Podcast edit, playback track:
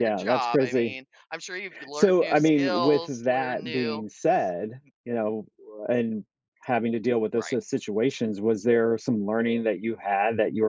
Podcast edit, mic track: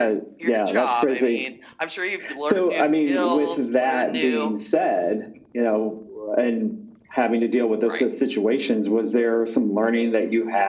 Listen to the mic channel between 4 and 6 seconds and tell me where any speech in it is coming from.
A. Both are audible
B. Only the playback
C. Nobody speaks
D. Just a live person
B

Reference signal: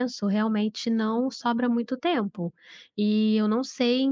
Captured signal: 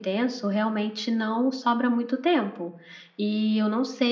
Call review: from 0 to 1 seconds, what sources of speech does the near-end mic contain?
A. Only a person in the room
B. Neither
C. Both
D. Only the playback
D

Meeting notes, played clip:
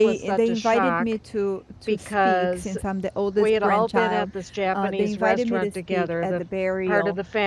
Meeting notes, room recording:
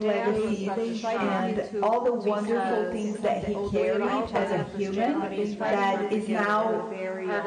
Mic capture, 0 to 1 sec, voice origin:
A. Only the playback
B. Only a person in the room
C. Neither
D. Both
D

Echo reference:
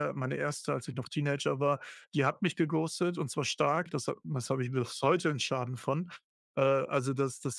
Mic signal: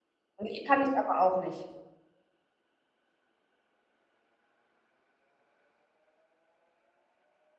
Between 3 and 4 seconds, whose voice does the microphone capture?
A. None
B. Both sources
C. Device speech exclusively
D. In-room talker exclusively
A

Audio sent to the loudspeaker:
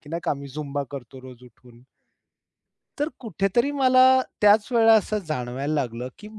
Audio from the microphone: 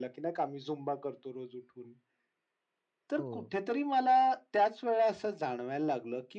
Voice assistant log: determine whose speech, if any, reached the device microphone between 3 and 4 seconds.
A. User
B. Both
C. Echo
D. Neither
B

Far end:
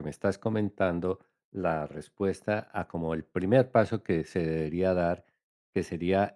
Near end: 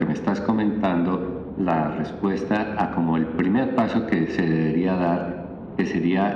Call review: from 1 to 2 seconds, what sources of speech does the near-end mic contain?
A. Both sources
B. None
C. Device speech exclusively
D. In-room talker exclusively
C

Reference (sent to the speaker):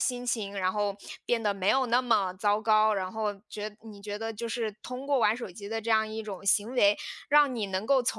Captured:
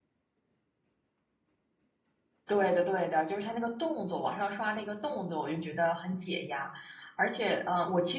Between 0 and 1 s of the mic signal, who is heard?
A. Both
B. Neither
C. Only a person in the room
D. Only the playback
B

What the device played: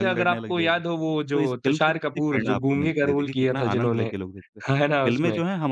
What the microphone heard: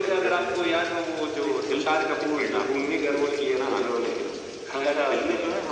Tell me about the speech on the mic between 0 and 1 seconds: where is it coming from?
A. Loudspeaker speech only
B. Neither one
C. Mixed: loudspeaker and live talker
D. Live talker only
A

